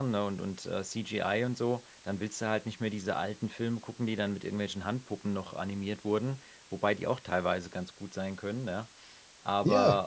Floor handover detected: No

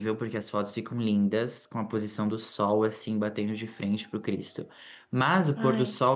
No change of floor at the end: Yes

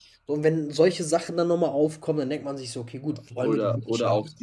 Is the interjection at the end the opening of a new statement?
Yes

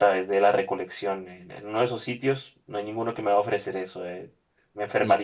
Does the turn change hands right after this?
No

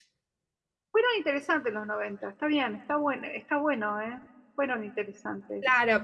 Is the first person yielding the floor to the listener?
Yes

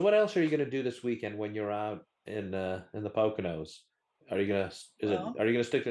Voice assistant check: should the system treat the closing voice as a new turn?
No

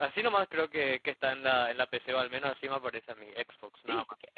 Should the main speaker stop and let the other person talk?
Yes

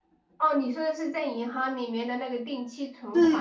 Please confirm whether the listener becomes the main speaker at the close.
Yes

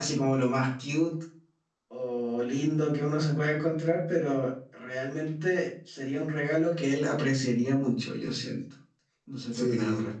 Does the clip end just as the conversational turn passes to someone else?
Yes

